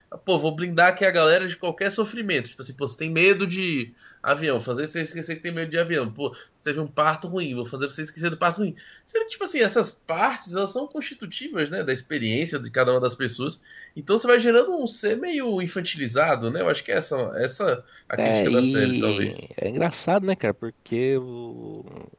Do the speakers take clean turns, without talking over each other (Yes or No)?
No